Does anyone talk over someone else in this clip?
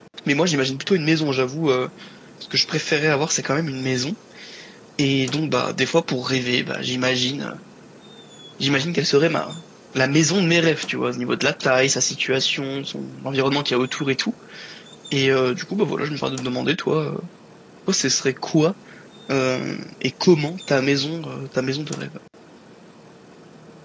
No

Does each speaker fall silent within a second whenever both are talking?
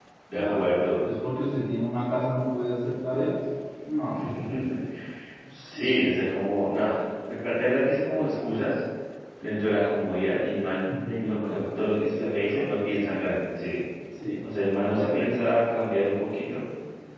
No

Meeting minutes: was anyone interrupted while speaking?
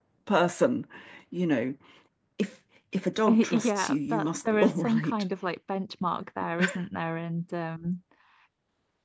Yes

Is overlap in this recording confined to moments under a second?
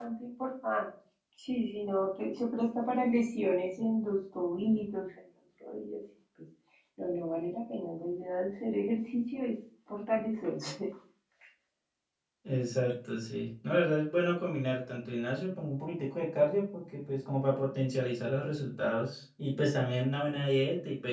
Yes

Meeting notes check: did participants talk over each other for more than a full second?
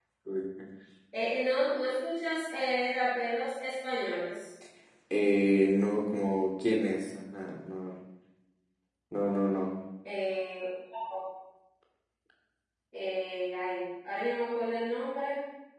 No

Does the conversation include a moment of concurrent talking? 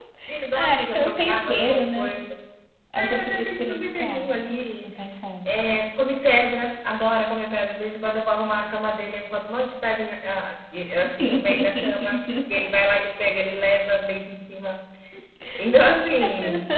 Yes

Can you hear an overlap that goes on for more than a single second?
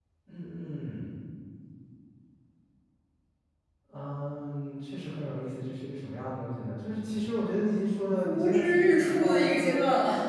Yes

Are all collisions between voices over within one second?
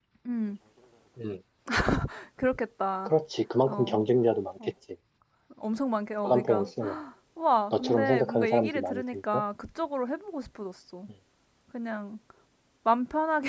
No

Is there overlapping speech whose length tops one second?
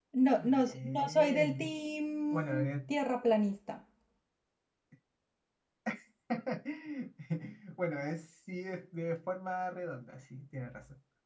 Yes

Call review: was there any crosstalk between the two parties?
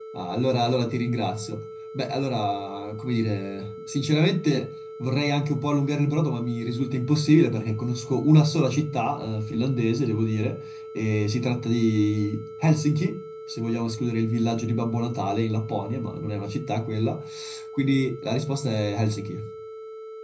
No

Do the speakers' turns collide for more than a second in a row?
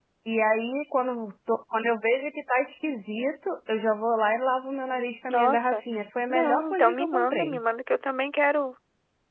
Yes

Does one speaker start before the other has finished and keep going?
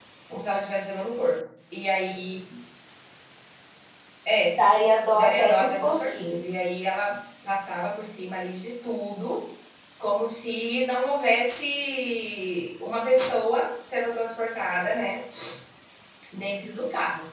Yes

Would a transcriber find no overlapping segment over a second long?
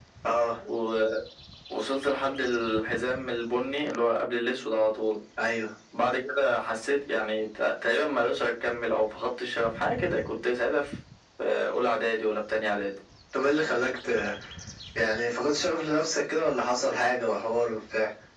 Yes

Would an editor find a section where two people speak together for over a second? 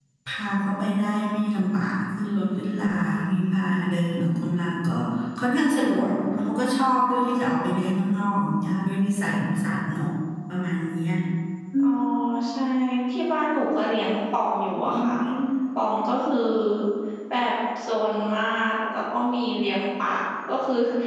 No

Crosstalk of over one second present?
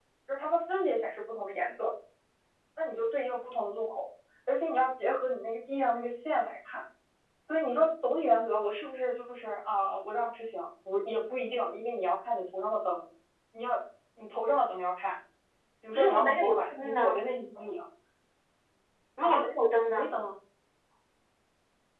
Yes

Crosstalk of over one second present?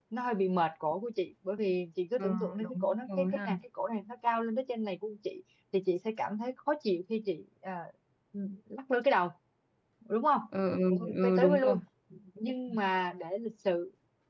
Yes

